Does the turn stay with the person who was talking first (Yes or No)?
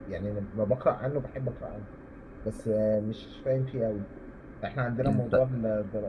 Yes